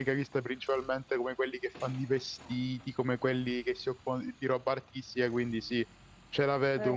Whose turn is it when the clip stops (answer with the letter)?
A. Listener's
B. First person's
A